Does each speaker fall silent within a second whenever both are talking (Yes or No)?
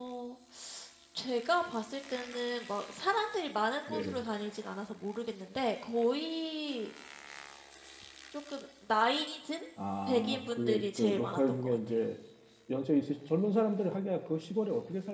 No